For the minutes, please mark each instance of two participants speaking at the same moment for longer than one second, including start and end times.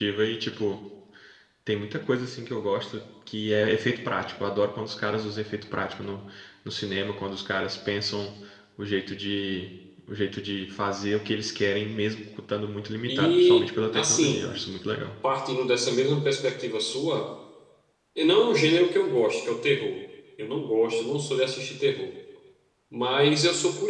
13.1-14.4

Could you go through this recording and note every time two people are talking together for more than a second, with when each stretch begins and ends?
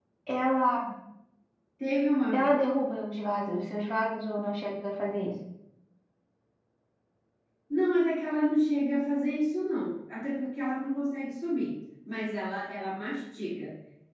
none

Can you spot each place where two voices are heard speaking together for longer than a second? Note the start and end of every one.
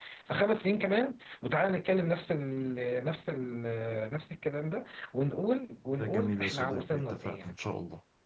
6.0-7.5

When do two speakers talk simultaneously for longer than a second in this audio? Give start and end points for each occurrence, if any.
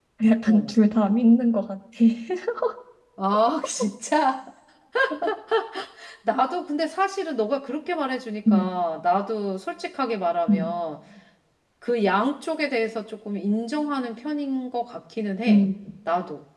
none

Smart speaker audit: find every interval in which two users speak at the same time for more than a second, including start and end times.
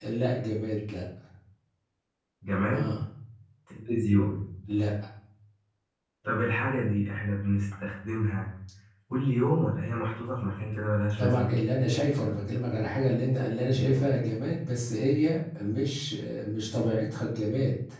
none

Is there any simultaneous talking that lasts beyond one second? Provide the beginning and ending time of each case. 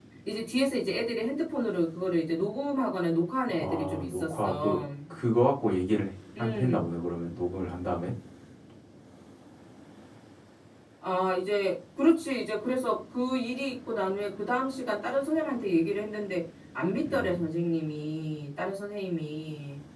3.6-4.8

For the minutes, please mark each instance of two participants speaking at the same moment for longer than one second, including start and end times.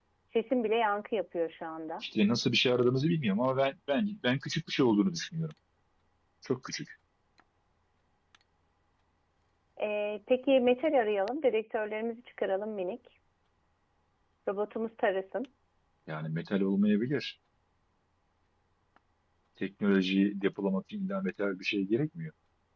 none

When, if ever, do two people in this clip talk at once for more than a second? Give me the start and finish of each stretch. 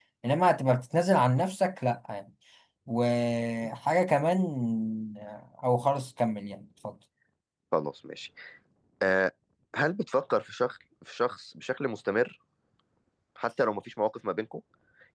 none

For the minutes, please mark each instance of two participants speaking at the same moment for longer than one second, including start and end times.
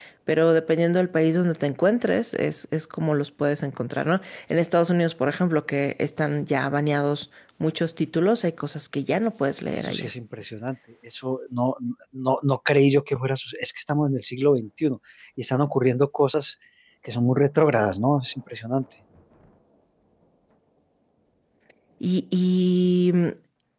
none

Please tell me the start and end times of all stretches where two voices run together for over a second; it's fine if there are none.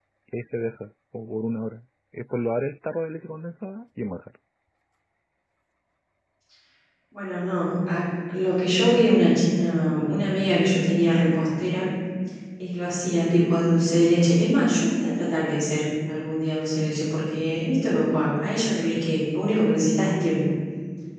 none

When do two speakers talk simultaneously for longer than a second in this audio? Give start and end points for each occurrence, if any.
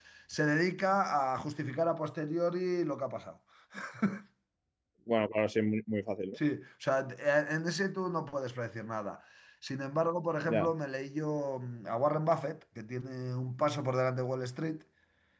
none

